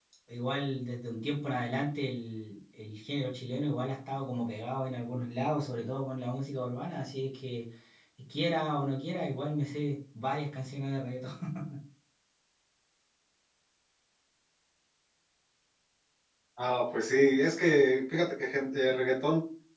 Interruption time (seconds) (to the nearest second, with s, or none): none